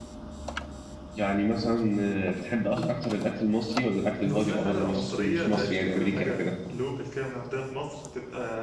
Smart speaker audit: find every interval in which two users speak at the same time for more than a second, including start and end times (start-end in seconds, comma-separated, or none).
4.2-6.5